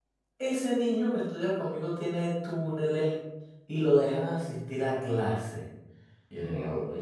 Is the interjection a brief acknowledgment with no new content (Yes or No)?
Yes